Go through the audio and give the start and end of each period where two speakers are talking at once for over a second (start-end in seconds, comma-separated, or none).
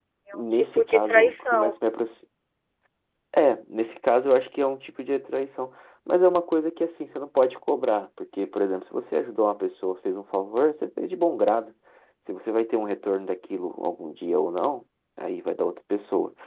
0.5-1.8